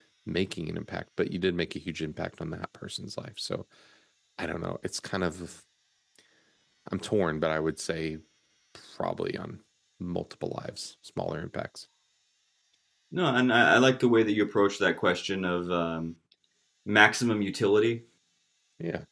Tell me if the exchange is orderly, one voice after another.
Yes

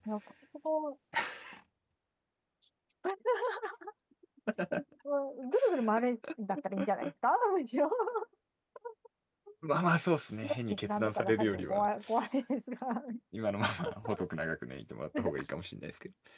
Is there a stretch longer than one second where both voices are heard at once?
Yes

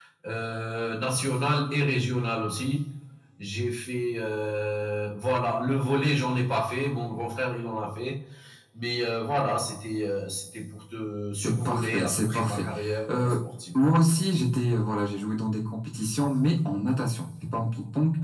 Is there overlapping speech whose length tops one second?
Yes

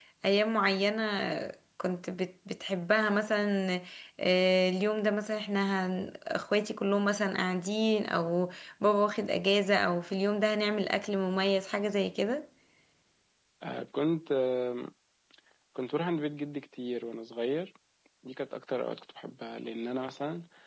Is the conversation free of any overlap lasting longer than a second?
Yes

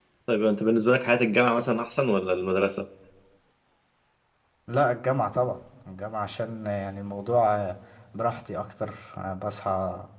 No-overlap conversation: Yes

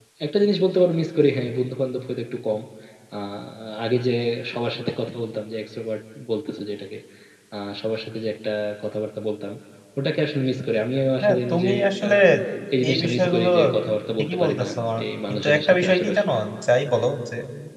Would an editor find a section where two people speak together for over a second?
Yes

